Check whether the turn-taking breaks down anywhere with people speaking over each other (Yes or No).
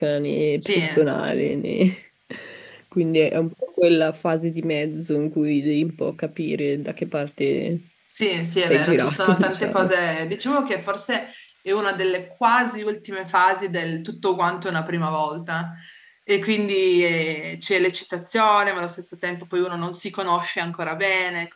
Yes